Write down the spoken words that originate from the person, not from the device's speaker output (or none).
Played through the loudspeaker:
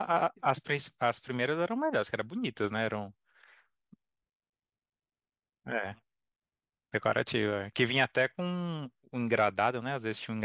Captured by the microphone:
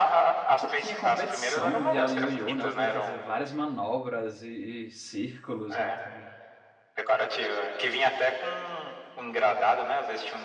Cê- Tinha competição mundial de ioiô, né? O povo fazia várias manobras e, e círculos. entendeu?